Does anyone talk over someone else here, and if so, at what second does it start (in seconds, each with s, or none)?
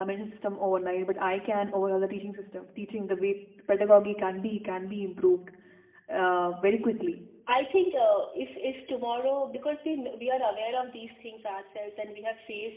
none